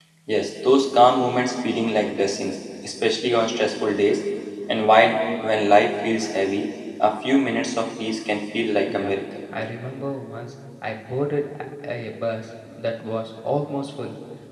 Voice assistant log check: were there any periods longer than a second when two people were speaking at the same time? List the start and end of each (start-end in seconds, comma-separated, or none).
none